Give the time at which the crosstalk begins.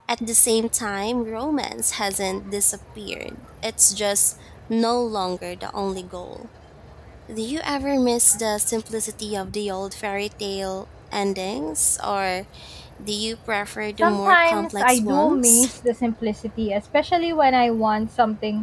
14 s

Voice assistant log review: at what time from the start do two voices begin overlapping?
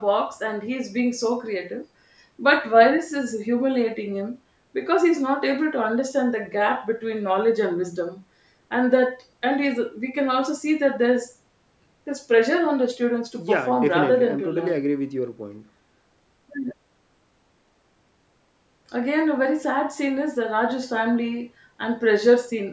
13 s

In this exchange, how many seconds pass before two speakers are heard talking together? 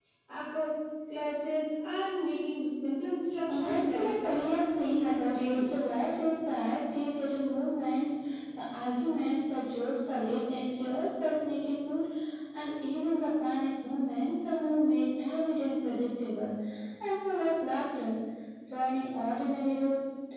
3 s

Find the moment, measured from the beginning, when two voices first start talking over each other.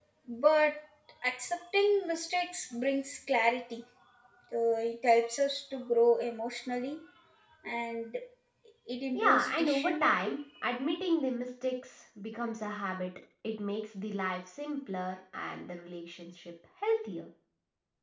9 s

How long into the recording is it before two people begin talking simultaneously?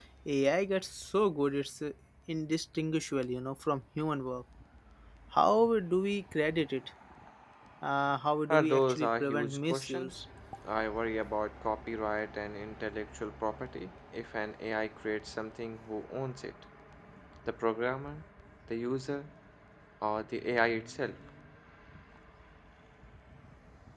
8 s

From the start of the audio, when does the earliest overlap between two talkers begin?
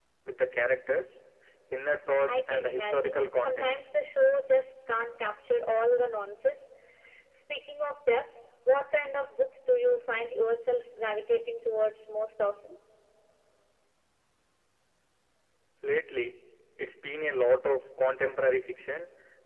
2 s

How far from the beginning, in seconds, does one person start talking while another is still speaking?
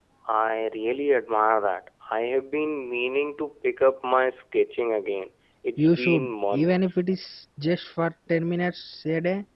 6 s

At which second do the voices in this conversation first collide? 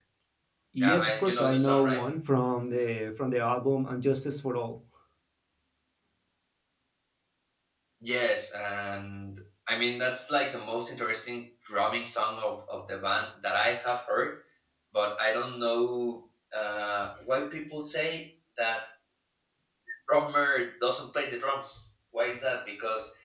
1 s

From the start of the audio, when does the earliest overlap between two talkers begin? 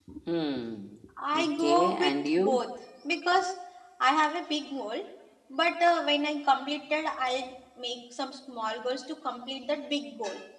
1 s

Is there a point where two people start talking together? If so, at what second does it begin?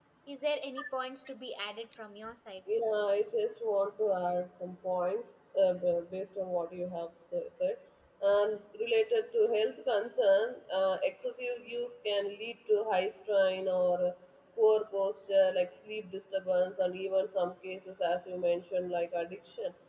none

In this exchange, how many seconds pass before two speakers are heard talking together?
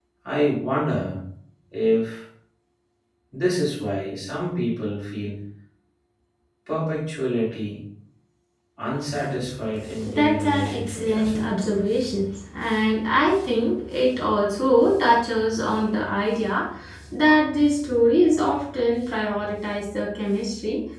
10 s

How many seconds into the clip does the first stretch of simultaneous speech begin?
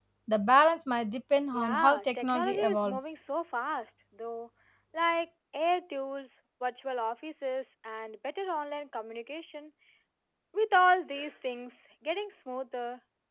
2 s

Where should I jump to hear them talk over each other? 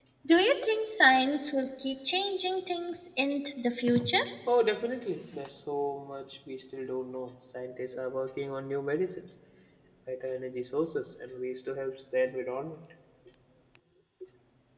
none

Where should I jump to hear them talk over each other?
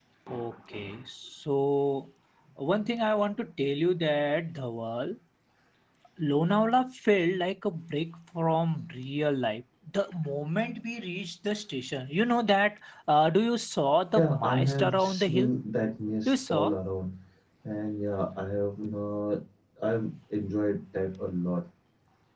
14 s

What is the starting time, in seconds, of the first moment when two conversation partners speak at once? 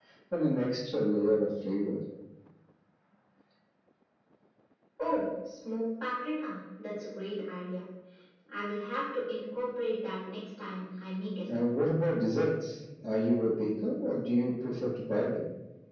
none

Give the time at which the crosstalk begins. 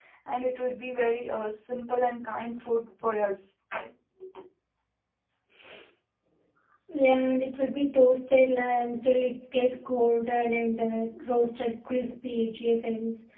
none

